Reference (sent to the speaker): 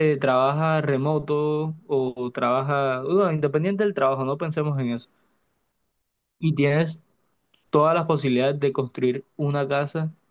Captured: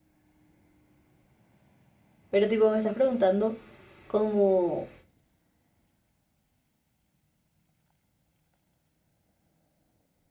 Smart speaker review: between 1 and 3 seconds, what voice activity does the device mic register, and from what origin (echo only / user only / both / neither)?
user only